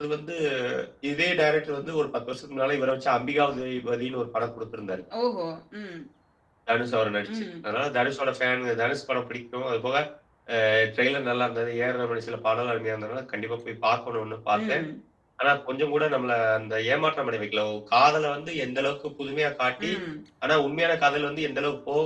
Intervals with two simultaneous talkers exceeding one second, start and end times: none

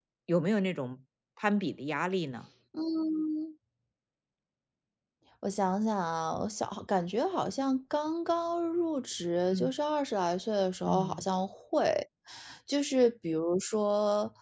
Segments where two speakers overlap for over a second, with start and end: none

